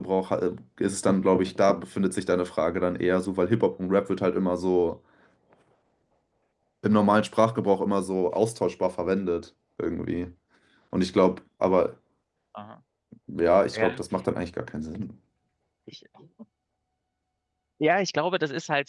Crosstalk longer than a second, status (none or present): none